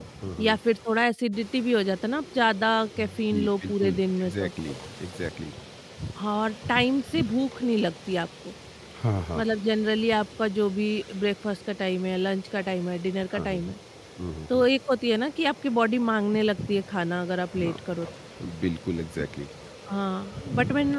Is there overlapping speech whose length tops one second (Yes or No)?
Yes